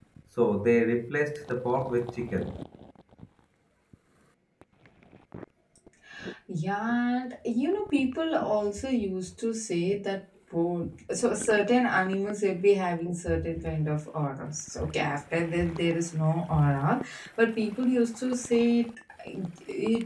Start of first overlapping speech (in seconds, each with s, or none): none